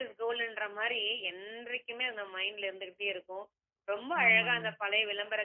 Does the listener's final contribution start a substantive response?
No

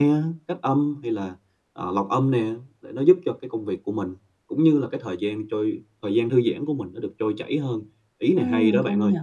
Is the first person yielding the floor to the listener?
Yes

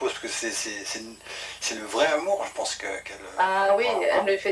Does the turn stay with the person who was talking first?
No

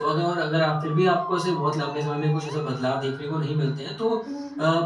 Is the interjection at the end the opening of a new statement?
No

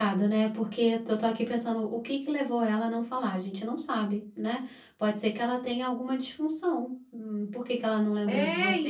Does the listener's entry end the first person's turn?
Yes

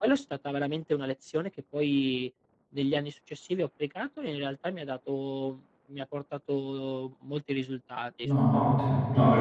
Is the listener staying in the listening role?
No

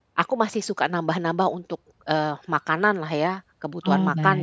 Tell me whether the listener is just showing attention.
No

